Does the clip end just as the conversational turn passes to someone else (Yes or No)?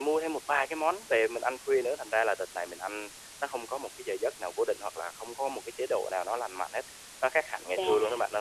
Yes